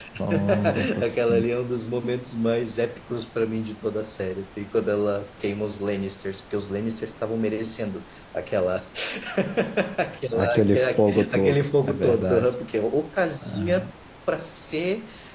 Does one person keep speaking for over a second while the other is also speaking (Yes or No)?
Yes